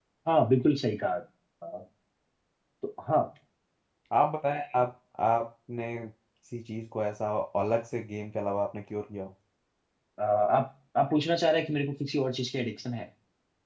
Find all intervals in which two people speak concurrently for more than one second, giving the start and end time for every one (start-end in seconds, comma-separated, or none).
none